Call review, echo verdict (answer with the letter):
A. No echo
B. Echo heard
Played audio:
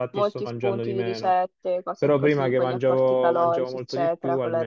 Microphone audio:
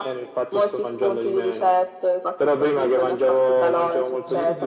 B